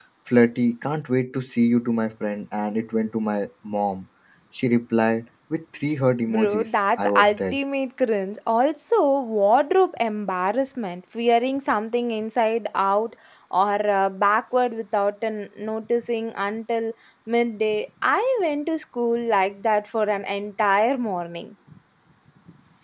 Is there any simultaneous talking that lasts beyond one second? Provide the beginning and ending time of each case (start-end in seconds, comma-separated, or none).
6.3-7.6